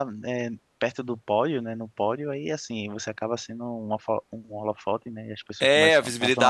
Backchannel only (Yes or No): No